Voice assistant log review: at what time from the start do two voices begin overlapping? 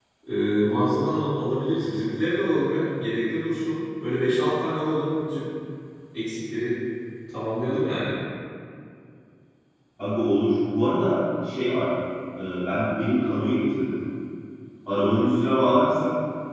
none

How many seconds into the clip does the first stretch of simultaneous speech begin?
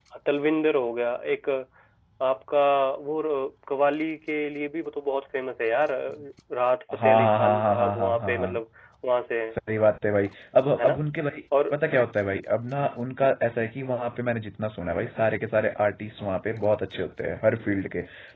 6.9 s

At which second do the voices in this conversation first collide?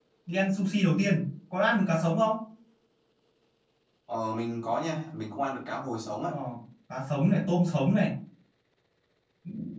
none

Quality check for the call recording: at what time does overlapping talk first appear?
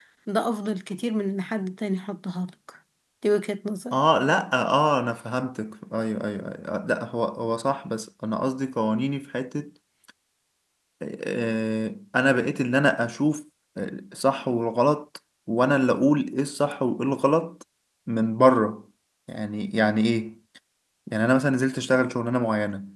none

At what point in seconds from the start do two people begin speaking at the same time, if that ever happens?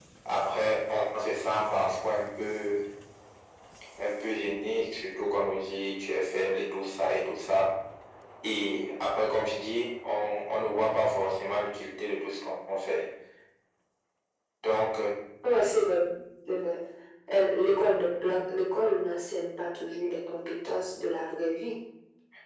none

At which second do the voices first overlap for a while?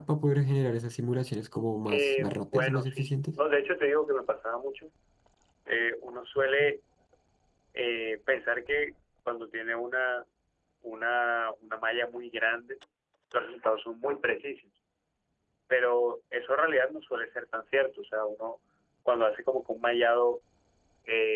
1.9 s

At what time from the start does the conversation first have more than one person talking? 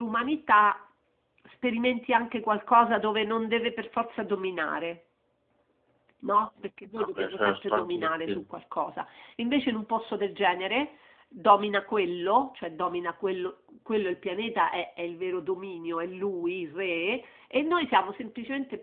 7.0 s

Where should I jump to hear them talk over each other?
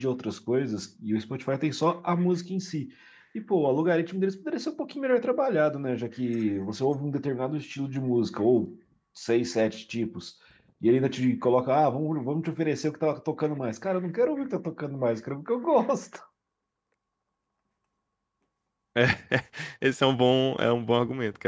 none

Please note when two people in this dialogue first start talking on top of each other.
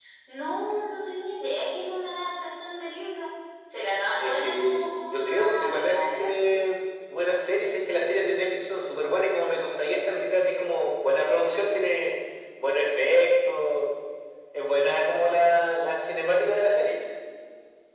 4.2 s

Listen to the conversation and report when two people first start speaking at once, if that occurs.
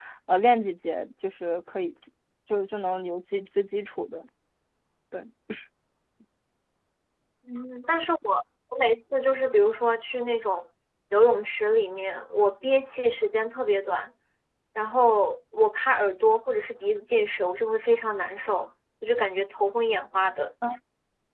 none

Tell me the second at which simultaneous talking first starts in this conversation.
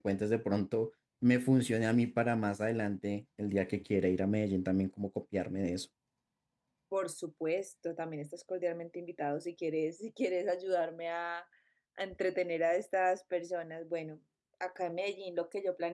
none

